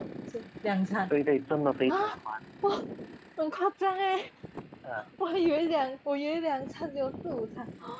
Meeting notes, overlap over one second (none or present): none